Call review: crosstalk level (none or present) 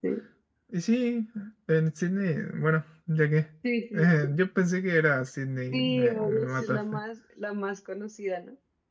present